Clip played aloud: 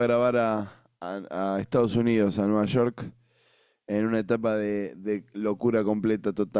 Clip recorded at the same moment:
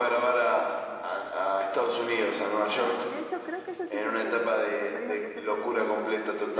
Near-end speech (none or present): present